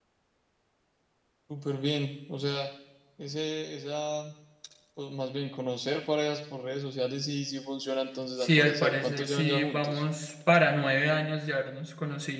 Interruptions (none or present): present